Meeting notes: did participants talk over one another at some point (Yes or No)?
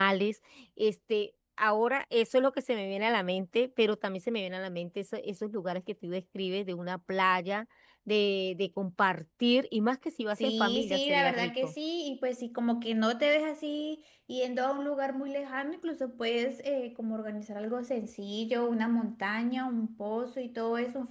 Yes